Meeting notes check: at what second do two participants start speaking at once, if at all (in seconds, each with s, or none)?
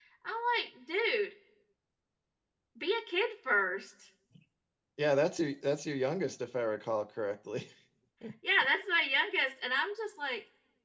none